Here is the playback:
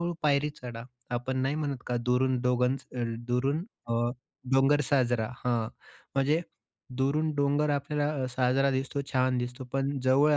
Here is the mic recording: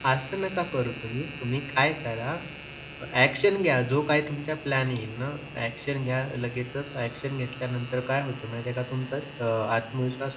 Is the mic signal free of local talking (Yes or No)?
No